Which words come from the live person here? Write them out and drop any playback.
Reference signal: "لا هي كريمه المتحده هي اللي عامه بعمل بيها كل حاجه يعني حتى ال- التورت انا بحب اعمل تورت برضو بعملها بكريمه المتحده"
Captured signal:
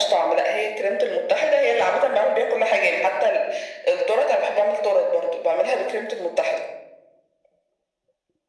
none

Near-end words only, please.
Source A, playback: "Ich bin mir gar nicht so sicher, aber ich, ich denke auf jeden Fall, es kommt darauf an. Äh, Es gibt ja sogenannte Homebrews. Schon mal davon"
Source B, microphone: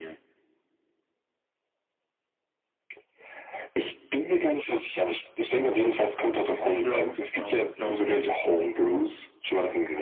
Beschwörungszauber, glaube ich.

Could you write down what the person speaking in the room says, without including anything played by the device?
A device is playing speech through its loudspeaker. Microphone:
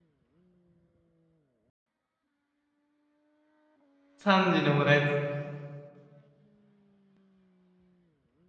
3時のおやつ。い

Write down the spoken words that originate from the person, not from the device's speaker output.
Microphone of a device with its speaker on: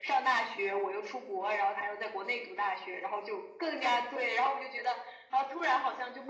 none

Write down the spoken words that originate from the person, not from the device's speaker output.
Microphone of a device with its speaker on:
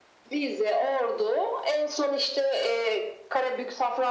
none

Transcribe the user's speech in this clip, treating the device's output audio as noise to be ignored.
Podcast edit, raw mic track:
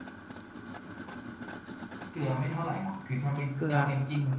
พริกเกลือ

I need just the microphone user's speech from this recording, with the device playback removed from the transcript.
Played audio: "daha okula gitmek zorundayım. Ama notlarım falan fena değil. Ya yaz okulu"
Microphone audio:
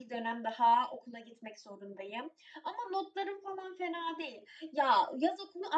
none

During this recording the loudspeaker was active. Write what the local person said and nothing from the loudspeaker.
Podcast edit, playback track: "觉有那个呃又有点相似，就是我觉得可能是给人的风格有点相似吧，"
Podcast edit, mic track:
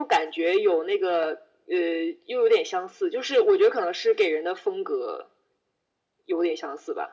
none

